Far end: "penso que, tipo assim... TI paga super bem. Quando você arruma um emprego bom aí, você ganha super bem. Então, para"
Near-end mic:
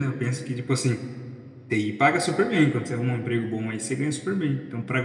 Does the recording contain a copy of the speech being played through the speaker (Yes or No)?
Yes